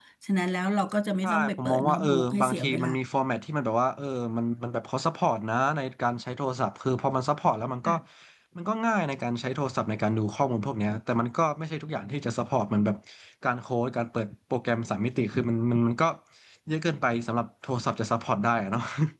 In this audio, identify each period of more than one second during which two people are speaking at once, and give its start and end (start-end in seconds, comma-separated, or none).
1.2-2.9